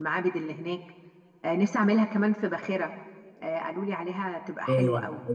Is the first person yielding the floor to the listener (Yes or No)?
Yes